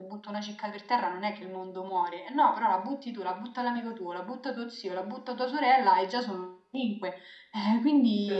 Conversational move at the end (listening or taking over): taking over